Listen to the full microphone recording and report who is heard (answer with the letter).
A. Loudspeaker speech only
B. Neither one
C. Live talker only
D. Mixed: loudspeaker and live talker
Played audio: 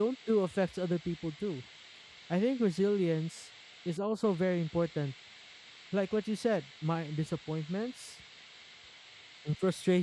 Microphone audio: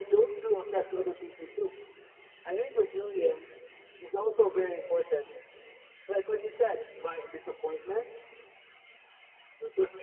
A